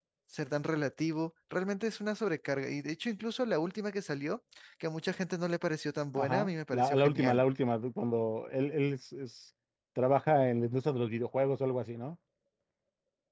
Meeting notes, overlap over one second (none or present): present